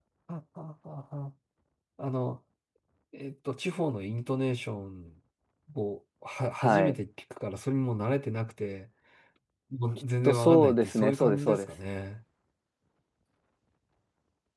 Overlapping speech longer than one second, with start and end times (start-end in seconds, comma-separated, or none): 10.2-11.7